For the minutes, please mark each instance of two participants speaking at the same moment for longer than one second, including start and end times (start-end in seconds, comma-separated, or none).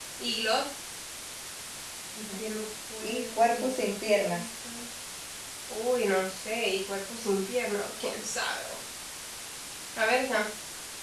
3.0-4.5